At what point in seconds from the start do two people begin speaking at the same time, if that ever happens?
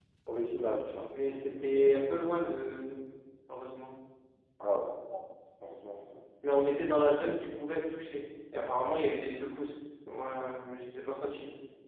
none

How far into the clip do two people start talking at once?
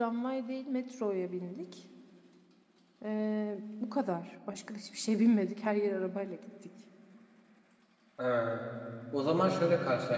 none

